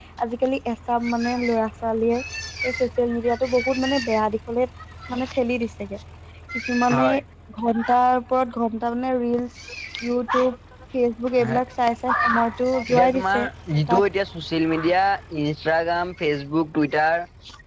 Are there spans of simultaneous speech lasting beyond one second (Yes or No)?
Yes